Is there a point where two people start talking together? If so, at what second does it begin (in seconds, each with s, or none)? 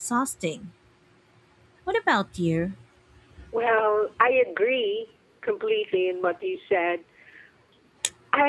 none